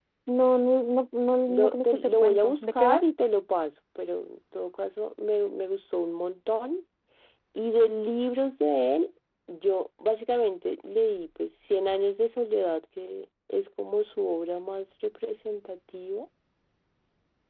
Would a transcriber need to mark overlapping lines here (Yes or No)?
Yes